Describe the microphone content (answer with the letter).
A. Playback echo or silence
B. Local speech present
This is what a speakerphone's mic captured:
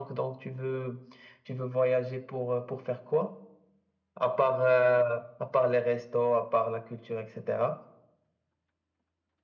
A